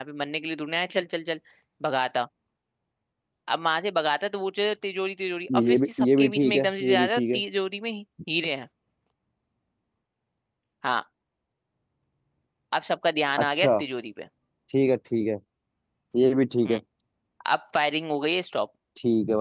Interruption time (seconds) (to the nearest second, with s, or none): 6 s